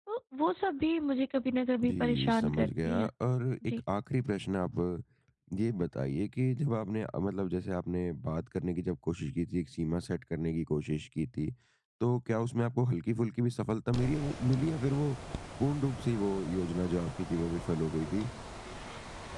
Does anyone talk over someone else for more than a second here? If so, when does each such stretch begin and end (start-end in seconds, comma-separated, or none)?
1.8-3.1